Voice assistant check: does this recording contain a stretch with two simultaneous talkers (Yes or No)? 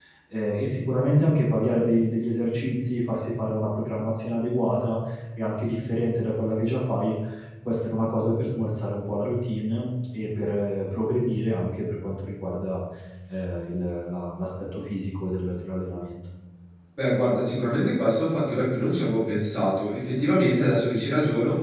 No